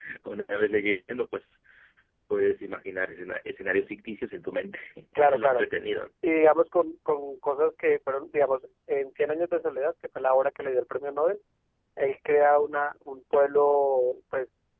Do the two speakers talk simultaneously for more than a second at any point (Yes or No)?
No